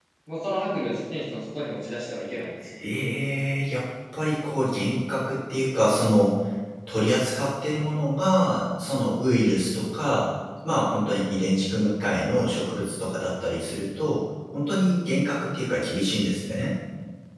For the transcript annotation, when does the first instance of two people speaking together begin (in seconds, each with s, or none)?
none